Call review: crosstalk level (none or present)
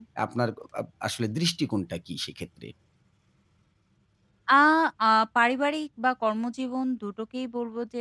none